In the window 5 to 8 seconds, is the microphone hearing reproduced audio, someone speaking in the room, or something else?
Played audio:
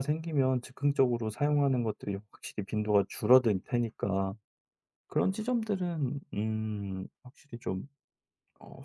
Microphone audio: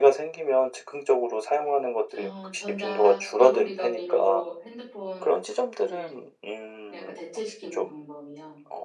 both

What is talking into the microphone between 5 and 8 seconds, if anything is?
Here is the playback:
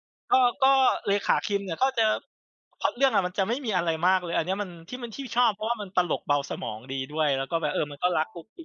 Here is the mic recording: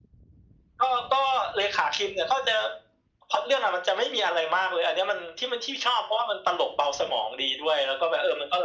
echo only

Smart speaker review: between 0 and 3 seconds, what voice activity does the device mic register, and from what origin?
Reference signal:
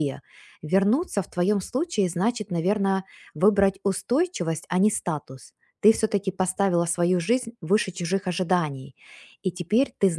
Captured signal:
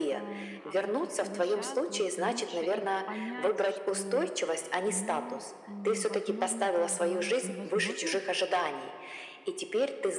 both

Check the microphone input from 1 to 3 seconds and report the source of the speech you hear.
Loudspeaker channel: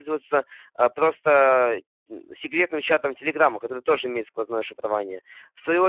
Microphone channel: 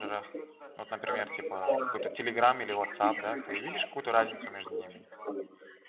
both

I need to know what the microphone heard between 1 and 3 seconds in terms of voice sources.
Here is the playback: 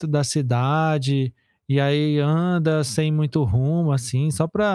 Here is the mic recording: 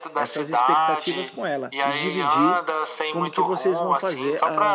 both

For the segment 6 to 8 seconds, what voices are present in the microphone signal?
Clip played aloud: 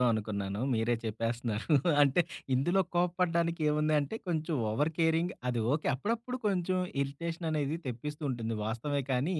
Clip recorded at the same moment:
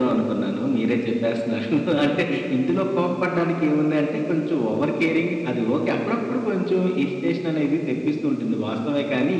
echo only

